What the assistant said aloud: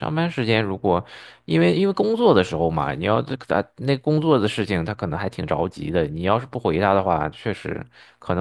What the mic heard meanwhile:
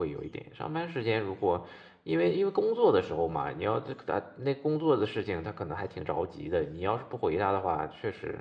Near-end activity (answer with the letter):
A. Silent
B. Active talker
A